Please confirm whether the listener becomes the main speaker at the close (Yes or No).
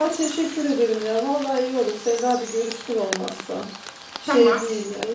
Yes